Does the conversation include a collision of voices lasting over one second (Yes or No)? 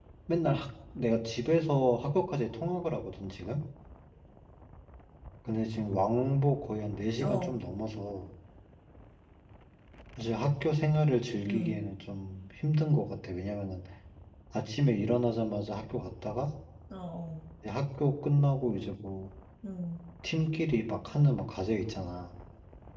No